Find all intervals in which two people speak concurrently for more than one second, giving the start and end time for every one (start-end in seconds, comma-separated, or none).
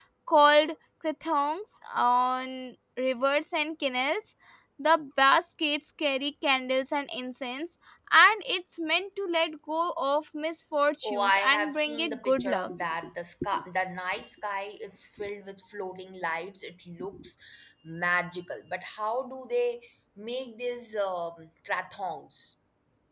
11.0-12.7